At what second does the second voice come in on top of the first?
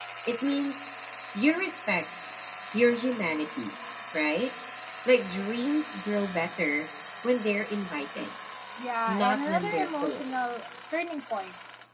9.1 s

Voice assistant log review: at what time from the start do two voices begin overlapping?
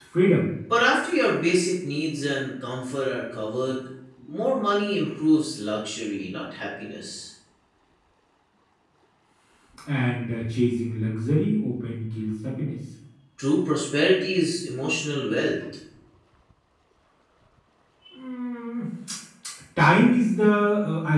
none

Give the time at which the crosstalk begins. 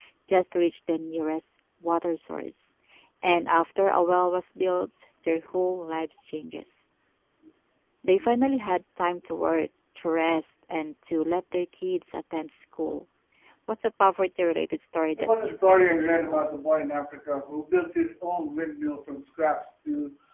15.2 s

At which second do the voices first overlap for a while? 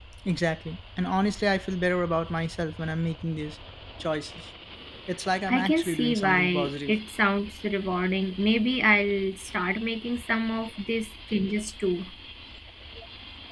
5.5 s

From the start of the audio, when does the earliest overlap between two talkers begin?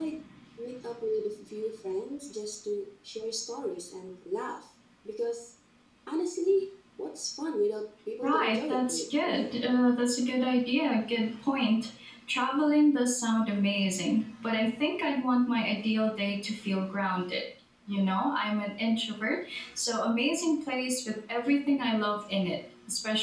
8.2 s

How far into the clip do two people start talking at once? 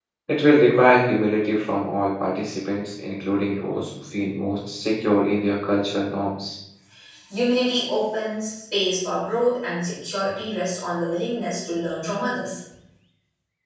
none

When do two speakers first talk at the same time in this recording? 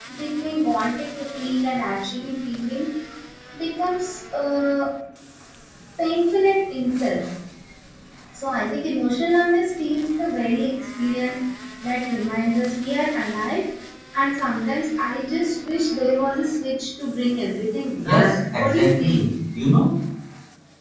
18.0 s

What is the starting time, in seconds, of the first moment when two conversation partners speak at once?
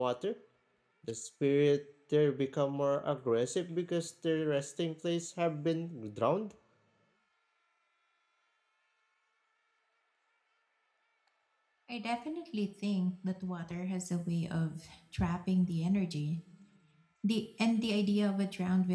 none

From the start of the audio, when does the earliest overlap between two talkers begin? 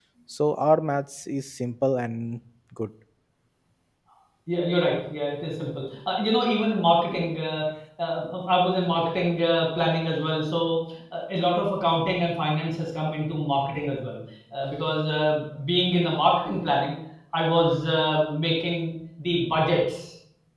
none

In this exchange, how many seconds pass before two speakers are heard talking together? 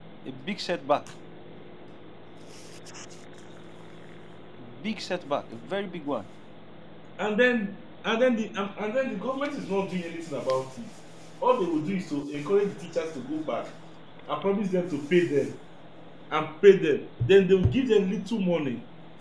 none

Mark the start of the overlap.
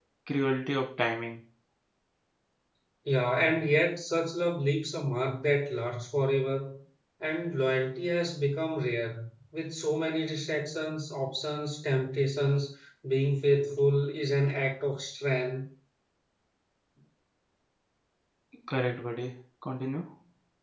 none

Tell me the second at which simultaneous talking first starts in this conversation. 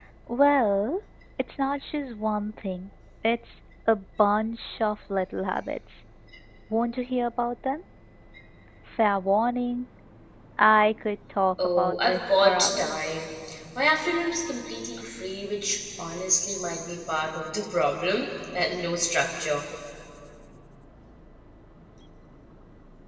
11.6 s

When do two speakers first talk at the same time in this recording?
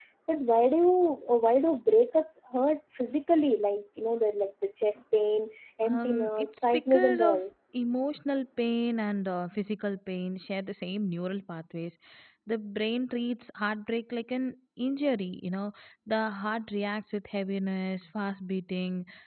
5.8 s

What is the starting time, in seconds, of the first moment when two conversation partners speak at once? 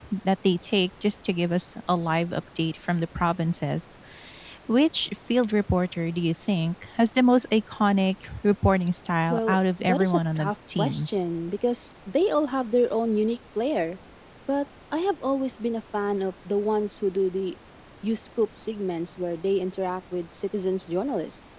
9.3 s

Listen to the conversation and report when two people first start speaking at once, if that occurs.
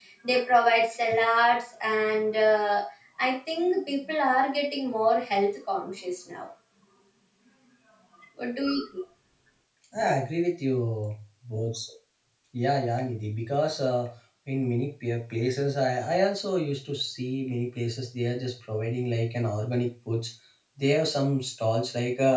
none

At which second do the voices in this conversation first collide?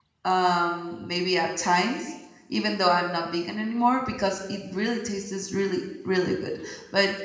none

